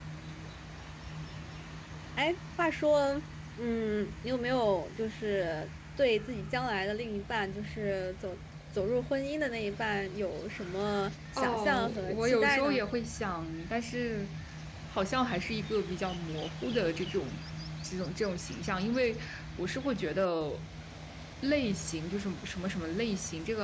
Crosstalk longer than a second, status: present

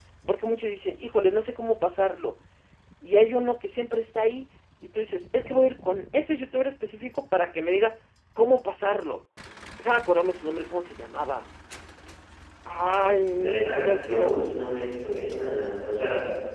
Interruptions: present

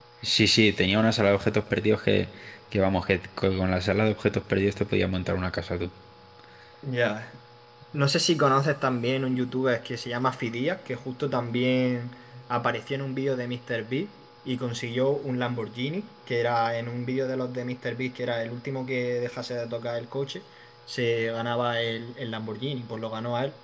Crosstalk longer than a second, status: none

